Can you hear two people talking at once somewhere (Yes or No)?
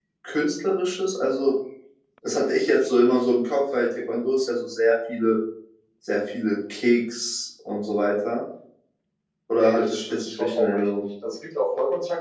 Yes